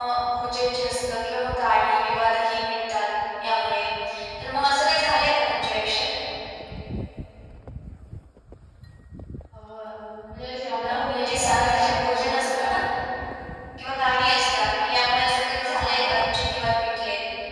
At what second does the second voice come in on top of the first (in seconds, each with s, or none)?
10.9 s